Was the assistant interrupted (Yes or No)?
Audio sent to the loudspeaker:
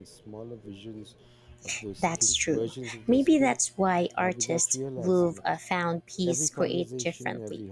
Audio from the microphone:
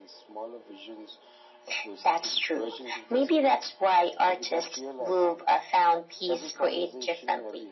No